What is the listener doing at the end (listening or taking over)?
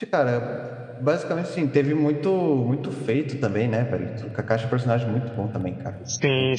taking over